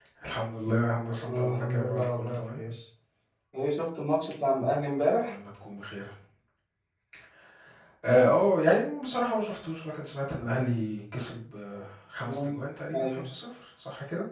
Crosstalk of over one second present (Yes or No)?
Yes